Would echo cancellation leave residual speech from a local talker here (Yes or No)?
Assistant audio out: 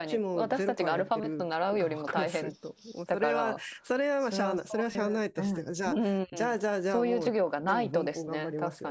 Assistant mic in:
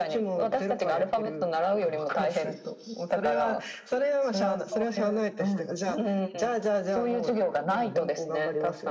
No